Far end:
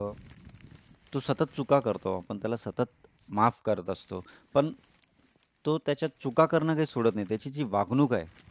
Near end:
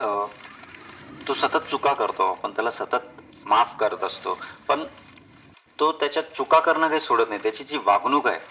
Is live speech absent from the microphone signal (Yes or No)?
Yes